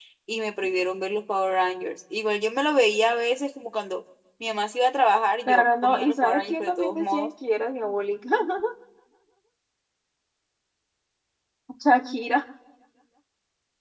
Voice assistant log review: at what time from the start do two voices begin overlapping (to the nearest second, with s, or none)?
5 s